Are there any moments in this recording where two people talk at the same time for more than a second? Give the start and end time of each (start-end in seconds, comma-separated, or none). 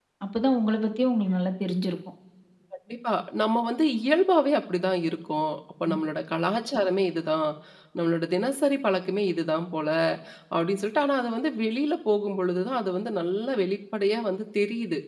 none